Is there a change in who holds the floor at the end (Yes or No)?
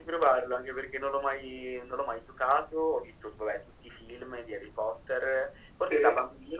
No